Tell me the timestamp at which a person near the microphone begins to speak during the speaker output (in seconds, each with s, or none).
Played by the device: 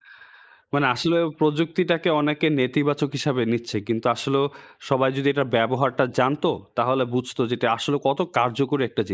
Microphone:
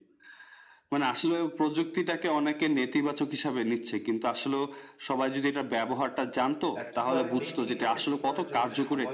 6.8 s